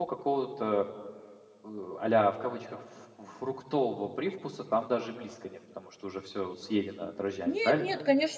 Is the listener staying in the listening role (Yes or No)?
No